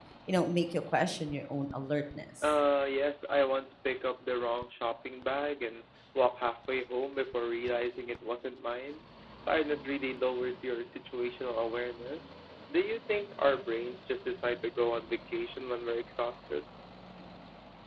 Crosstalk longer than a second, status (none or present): none